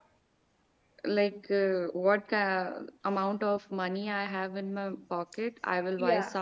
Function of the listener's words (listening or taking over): listening